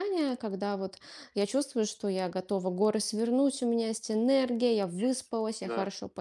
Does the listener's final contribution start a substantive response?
No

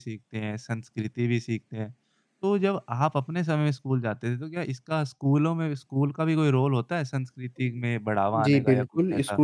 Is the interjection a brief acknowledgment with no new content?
No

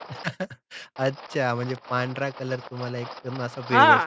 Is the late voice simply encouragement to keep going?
No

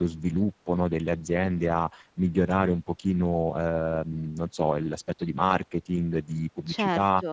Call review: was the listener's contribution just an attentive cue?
Yes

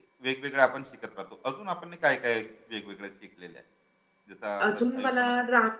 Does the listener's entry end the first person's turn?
Yes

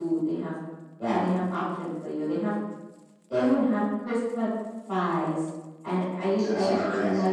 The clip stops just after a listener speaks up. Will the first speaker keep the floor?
Yes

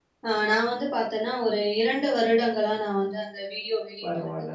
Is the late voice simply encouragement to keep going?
No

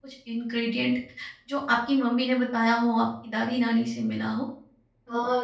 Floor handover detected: Yes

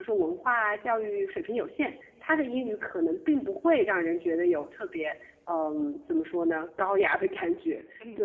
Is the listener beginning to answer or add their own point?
Yes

